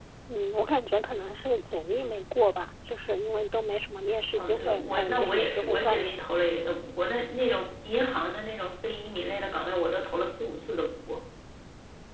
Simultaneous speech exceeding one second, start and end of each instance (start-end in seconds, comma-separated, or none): 4.4-6.2